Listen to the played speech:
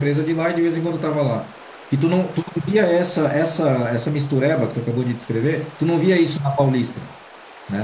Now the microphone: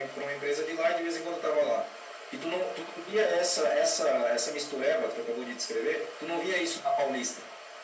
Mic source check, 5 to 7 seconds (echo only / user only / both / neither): echo only